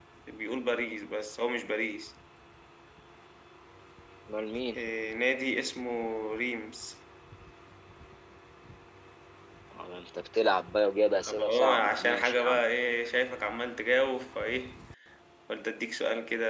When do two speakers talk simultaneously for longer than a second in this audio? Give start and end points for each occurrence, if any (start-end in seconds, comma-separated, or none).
11.2-12.6